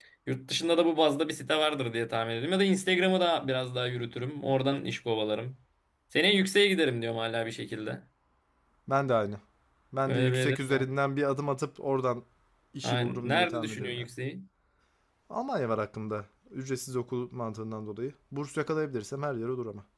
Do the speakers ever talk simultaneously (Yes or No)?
Yes